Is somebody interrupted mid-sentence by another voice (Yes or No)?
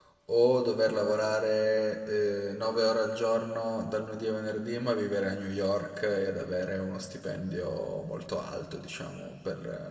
No